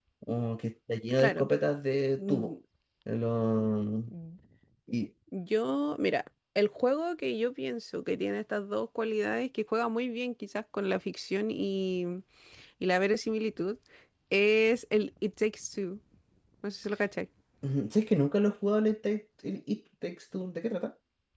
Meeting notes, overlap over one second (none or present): none